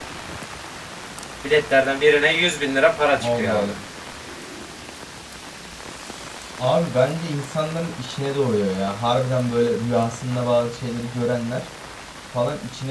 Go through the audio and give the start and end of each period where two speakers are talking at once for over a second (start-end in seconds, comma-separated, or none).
none